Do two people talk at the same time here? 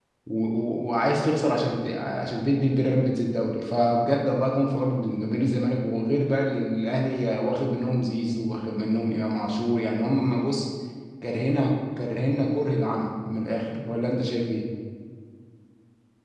No

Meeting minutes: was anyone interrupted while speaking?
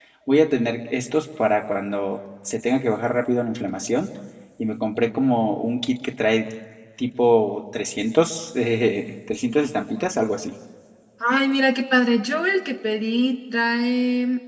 No

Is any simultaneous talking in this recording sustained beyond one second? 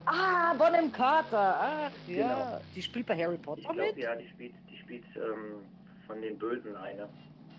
No

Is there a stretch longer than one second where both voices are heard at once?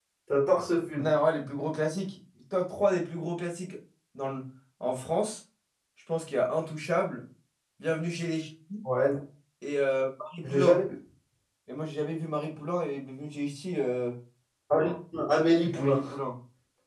No

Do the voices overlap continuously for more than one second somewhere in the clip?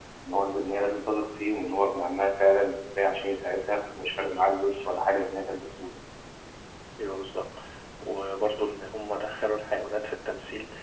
No

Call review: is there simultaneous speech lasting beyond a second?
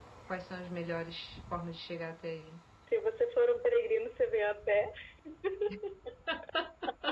No

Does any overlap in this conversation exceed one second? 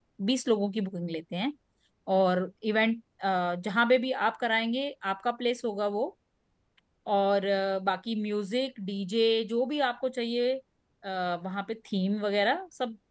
No

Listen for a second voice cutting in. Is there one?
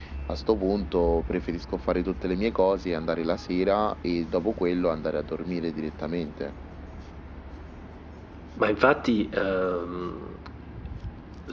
No

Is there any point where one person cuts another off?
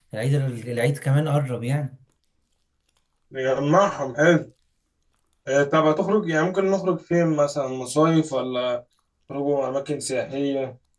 No

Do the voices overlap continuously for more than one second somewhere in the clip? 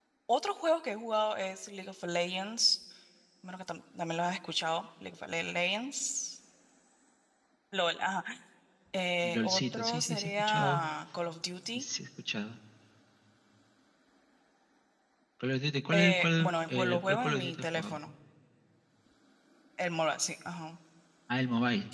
Yes, from 9.2 s

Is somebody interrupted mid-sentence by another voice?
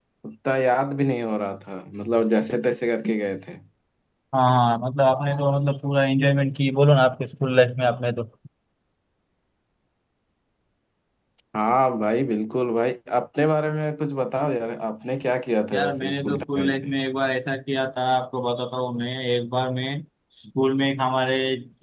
Yes, from 15.7 s

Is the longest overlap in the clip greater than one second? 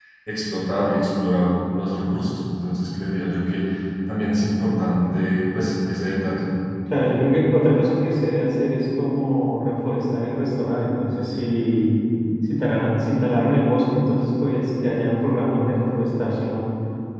No

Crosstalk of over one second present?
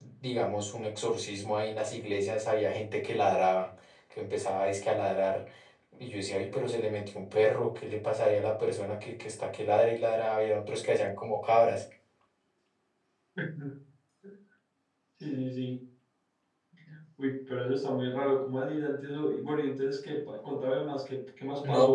No

